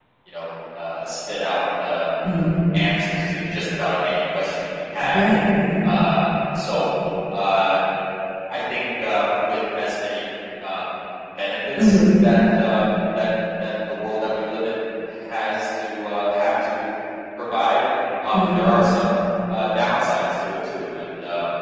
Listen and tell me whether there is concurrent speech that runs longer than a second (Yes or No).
No